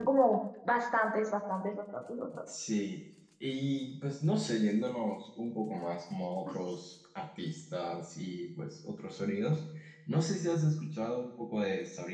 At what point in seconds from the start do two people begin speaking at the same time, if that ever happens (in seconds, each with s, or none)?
none